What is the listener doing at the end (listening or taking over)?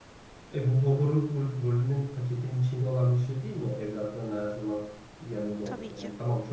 listening